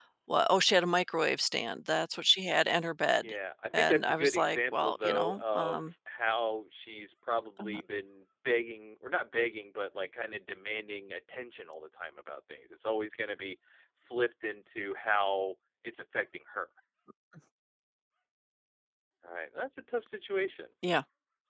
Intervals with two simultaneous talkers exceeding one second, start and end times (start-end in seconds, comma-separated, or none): 3.7-5.9